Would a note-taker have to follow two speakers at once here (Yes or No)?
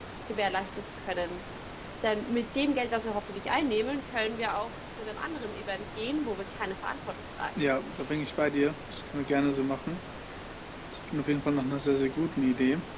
No